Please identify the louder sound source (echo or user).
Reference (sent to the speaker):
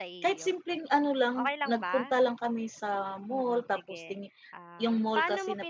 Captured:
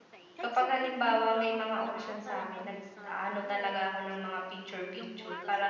user